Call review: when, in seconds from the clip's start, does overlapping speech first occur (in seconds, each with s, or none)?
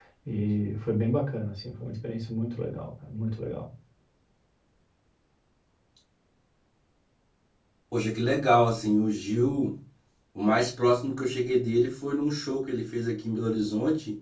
none